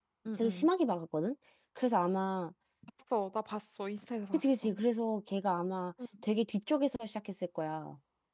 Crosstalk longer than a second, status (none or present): none